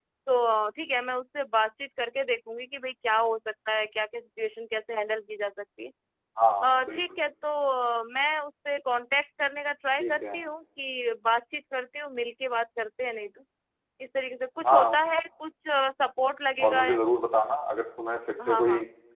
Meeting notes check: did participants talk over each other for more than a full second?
No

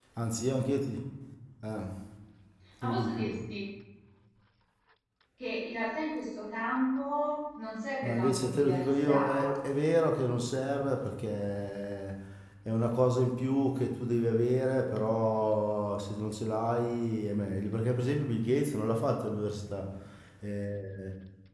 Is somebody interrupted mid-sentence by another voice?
Yes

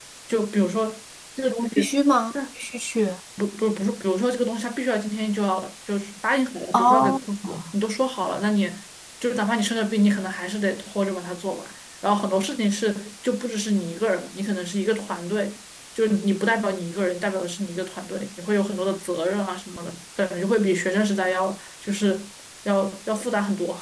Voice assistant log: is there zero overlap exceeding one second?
Yes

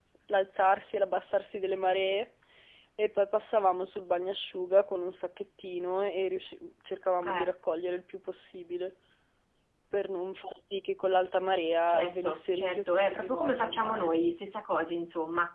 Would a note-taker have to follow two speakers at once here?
Yes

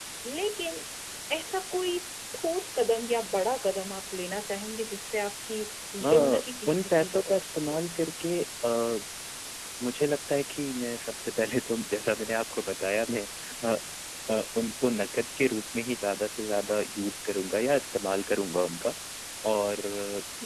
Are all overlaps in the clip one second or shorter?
No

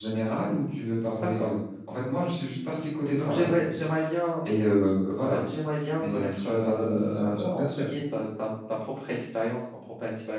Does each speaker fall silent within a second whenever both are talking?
No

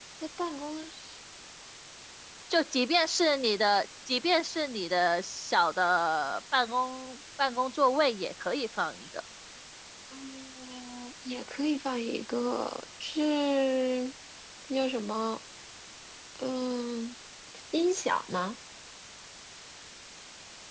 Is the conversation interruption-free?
Yes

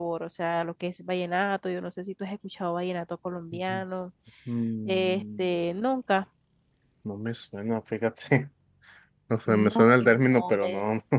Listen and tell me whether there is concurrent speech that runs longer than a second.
Yes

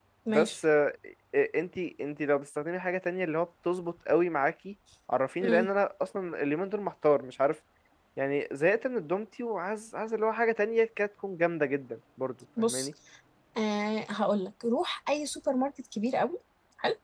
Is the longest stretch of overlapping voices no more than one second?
Yes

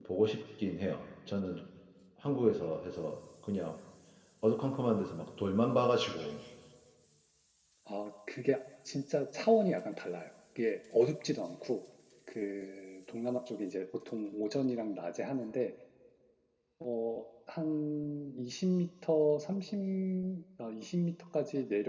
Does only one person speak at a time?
Yes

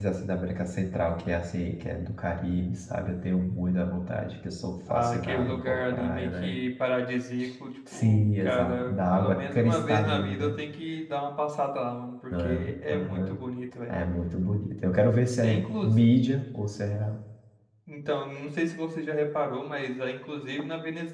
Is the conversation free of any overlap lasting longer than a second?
No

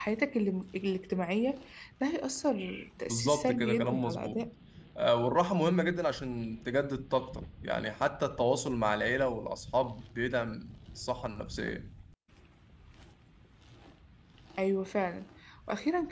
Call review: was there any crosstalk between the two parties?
Yes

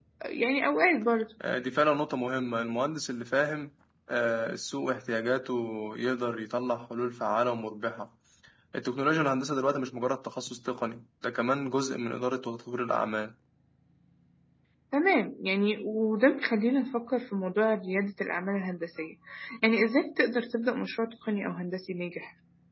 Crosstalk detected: No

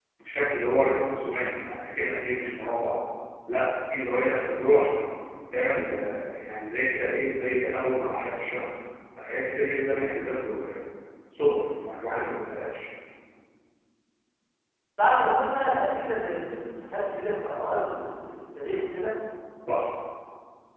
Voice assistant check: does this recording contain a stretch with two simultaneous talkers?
No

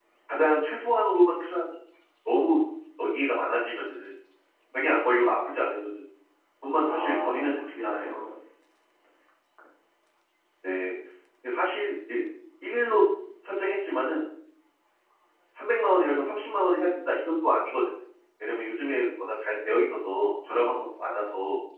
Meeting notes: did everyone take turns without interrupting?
No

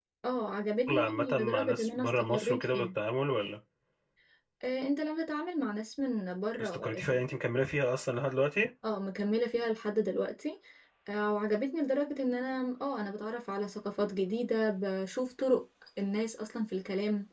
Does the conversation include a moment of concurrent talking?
Yes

